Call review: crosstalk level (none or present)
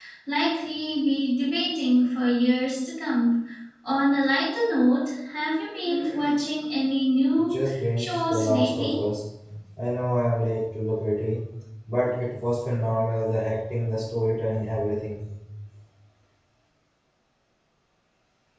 present